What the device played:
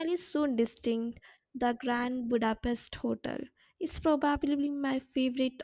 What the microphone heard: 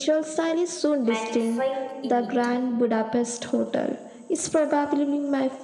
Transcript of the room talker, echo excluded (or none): magnifying in it.